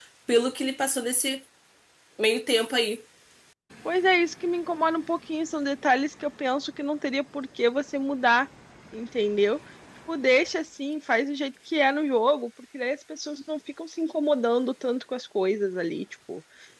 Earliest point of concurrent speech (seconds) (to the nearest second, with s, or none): none